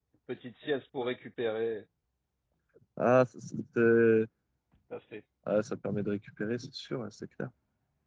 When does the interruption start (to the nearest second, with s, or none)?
none